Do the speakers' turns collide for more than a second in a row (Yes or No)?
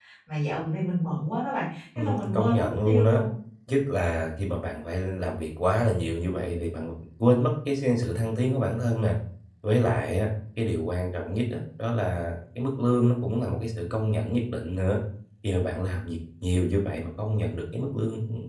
Yes